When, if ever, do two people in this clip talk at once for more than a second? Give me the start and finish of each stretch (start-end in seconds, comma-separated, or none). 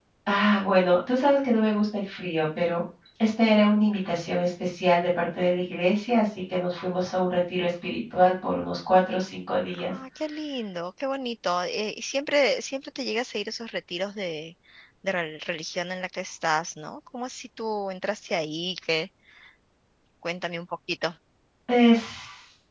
none